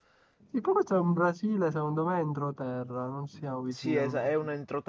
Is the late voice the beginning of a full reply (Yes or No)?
Yes